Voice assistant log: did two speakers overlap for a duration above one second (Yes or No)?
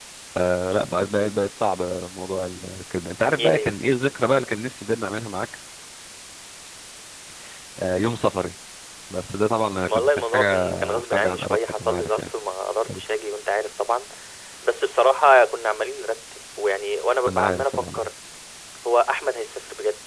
Yes